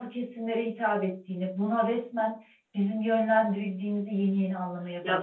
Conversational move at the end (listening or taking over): taking over